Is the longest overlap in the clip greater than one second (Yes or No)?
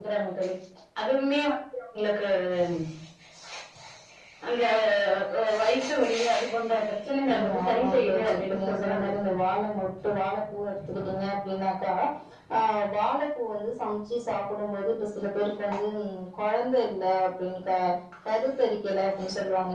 Yes